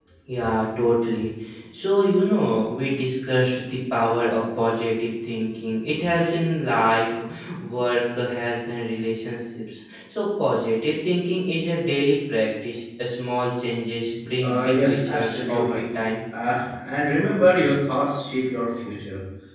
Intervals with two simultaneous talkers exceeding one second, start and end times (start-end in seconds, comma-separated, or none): 14.4-15.8